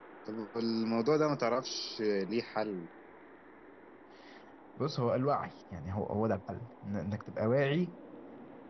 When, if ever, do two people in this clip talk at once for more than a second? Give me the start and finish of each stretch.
none

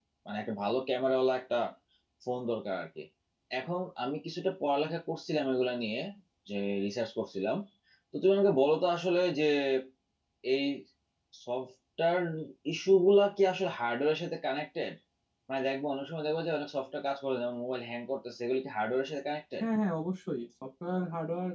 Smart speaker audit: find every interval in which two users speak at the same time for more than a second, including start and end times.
none

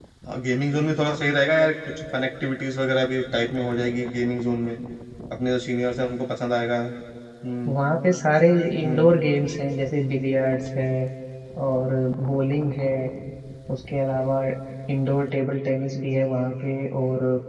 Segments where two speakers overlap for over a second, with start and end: none

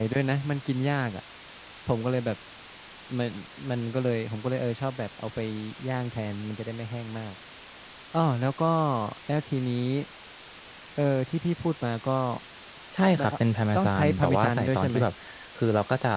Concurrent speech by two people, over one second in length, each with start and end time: 13.7-15.0

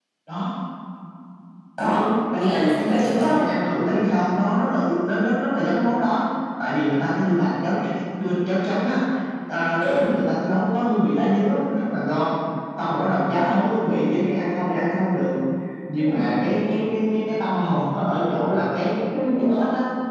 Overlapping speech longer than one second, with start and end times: 1.8-3.5

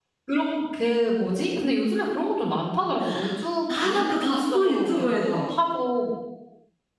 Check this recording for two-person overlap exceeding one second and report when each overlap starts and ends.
3.7-5.4

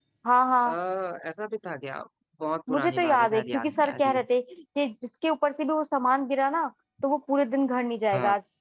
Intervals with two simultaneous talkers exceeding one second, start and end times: 2.7-4.2

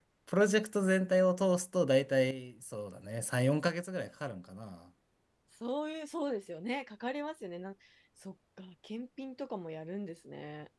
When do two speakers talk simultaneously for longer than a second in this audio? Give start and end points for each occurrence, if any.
none

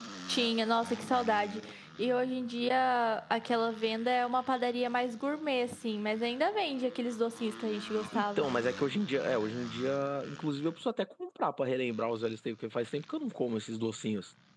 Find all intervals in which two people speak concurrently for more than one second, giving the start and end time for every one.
none

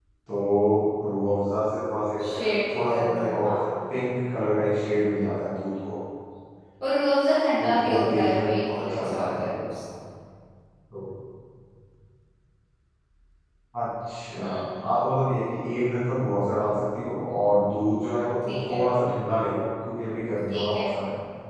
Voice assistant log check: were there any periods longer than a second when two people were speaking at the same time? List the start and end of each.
2.2-3.7, 7.6-9.5

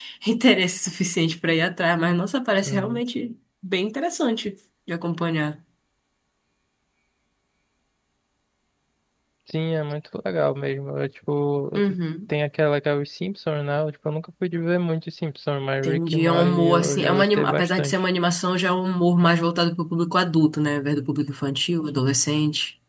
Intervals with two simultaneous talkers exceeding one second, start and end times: 15.8-18.0

